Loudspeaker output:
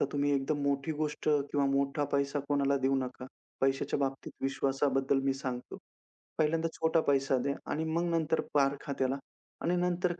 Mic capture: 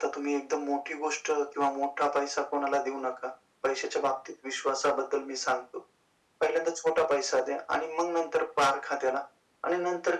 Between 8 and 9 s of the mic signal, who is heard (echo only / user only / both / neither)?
echo only